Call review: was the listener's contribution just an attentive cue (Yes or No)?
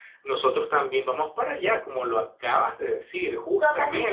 No